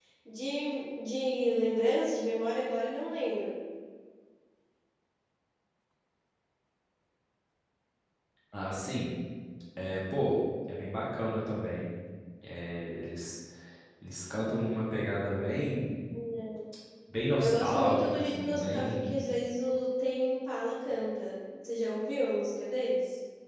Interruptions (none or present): present